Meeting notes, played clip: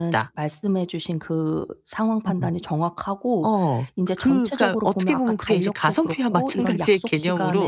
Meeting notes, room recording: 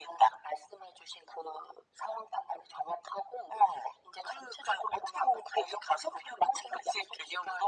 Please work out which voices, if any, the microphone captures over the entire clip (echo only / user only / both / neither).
echo only